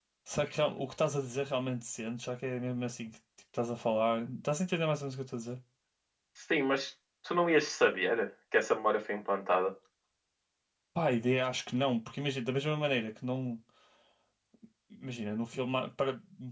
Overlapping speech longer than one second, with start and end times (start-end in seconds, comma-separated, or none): none